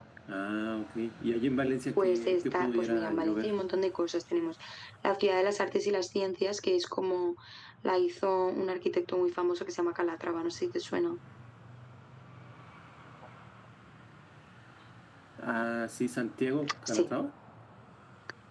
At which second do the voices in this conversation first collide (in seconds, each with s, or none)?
2.0 s